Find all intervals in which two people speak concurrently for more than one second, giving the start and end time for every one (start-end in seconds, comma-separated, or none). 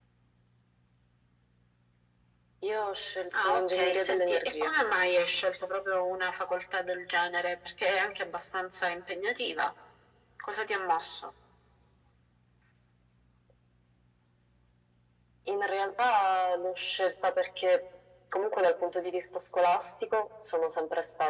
3.4-4.7